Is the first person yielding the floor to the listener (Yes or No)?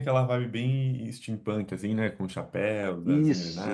Yes